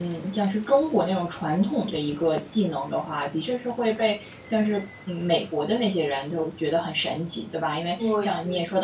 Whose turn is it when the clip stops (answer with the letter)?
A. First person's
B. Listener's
A